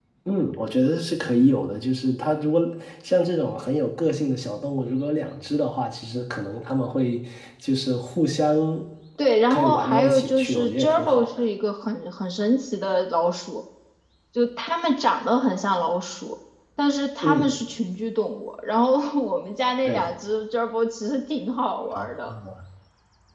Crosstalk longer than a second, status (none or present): present